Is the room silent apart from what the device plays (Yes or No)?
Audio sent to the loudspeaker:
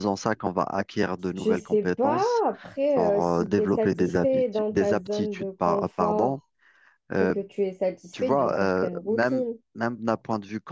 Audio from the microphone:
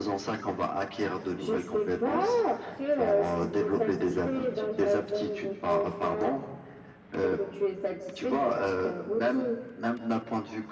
Yes